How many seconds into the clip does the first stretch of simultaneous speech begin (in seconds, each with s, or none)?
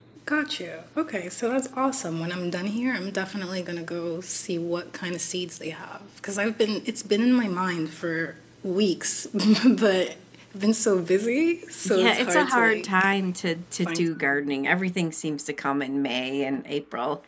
11.8 s